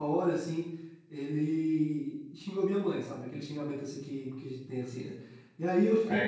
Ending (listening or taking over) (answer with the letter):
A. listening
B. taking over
B